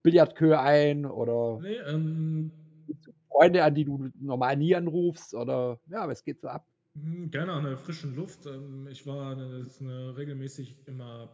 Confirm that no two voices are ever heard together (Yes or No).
Yes